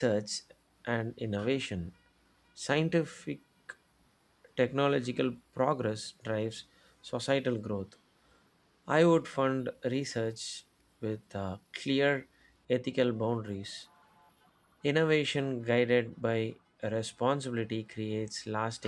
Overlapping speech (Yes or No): No